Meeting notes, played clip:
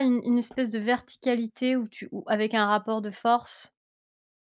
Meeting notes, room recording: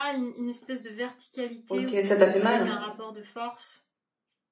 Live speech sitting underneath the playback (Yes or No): No